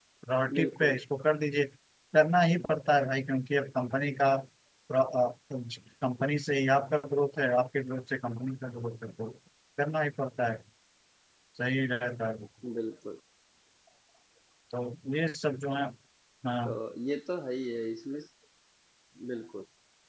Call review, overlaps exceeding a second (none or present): none